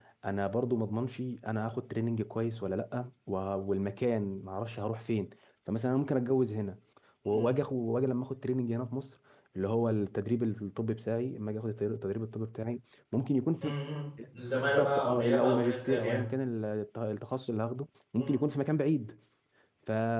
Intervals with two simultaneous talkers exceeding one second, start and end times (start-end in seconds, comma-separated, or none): 14.5-16.3